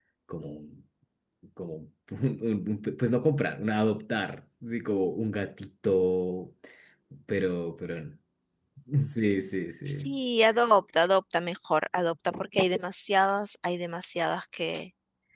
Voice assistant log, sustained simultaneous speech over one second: none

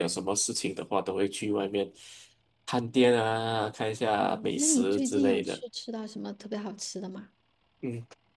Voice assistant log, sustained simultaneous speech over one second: present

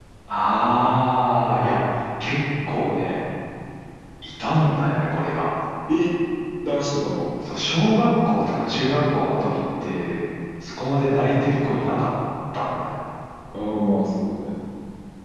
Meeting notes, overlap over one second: none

